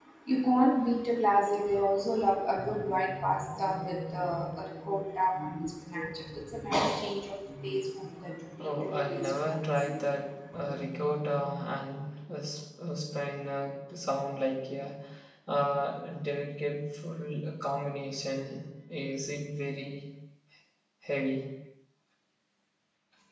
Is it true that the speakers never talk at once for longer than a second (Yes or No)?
No